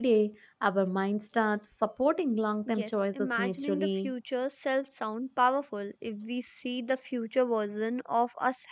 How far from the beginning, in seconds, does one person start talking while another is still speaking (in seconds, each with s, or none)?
2.7 s